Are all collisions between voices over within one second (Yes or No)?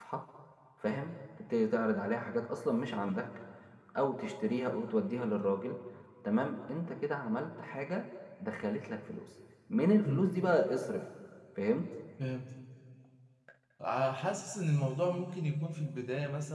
Yes